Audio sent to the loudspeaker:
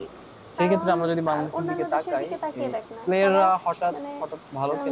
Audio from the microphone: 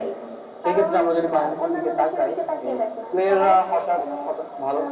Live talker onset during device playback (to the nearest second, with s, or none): none